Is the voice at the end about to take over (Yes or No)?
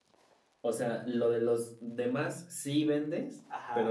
Yes